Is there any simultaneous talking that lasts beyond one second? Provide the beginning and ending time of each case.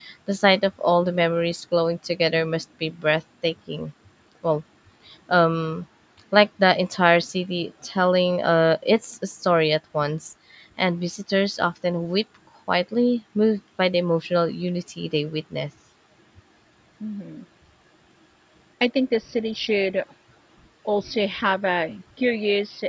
none

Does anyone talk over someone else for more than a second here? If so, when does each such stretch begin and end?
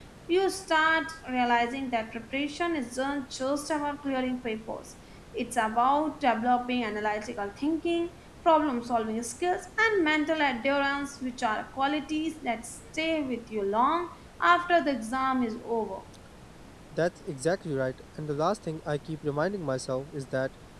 none

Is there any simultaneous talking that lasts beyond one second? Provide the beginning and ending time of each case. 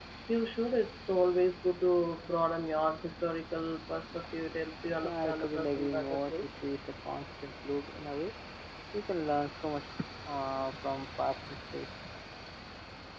5.0-6.5

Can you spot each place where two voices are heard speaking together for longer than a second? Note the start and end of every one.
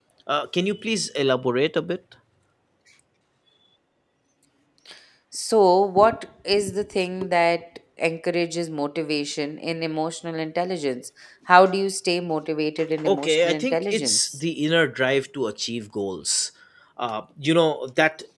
13.1-14.4

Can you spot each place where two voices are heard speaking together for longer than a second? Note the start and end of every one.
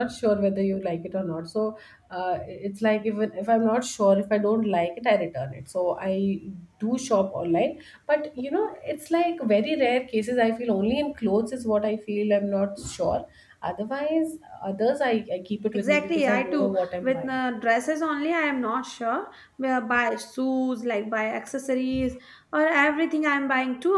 15.7-17.3

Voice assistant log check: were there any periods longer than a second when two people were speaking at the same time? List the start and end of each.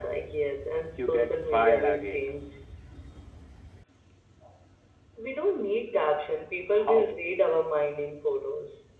1.0-2.3

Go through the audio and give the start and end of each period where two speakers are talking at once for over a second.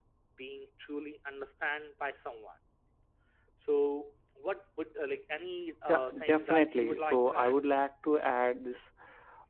5.9-7.6

